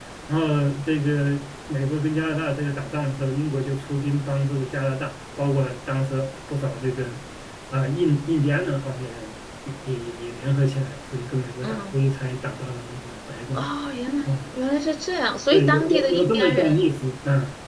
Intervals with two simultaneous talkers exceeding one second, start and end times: 15.5-16.8

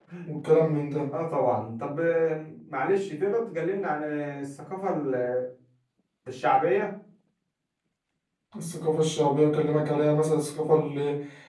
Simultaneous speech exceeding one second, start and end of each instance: none

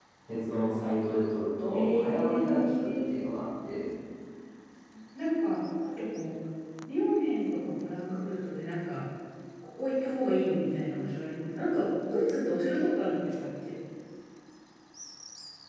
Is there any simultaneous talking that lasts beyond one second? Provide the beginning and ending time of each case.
1.7-3.0

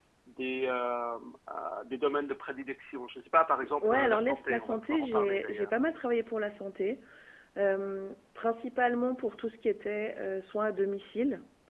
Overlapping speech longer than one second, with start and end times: 3.8-5.7

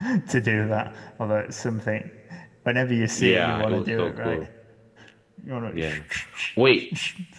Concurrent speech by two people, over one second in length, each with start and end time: 3.1-4.5

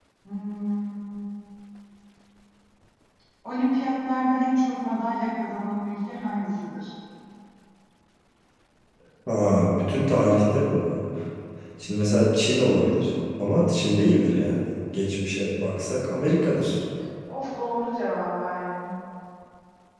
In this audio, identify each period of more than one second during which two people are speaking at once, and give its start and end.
none

